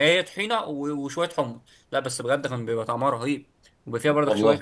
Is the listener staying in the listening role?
Yes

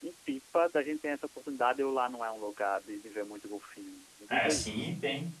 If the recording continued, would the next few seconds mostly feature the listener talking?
Yes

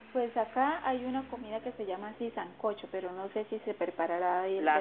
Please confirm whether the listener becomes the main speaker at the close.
Yes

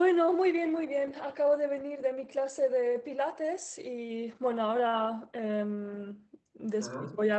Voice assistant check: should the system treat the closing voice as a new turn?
No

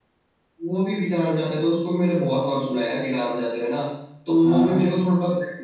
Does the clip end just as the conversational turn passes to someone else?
No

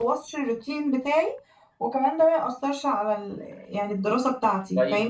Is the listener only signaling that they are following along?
No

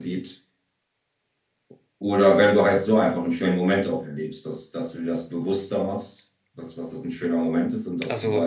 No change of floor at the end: Yes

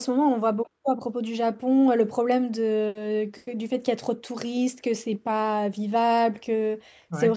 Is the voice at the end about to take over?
No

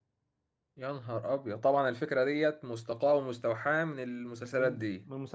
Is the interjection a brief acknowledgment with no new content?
No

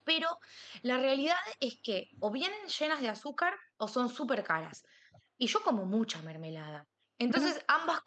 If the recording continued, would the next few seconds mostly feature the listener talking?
No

